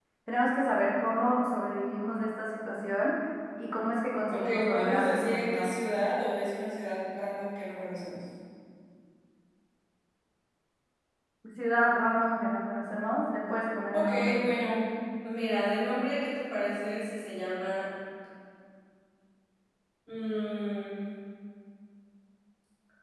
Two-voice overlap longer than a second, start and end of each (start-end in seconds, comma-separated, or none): 4.3-5.7